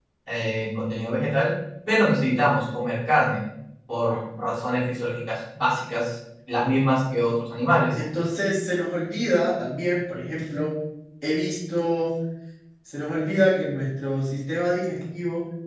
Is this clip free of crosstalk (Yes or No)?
Yes